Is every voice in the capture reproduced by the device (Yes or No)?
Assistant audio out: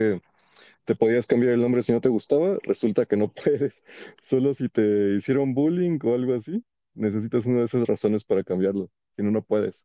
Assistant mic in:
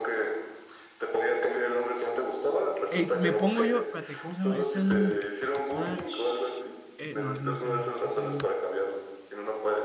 No